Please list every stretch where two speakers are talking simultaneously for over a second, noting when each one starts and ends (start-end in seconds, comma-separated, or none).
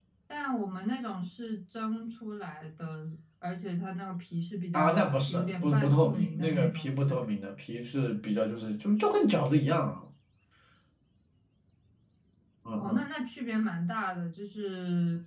4.7-7.2